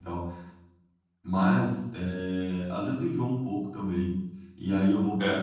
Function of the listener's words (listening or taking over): listening